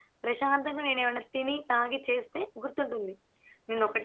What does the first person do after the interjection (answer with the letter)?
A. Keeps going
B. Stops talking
B